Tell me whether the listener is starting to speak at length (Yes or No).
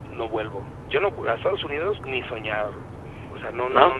No